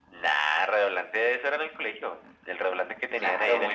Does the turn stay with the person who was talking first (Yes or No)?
No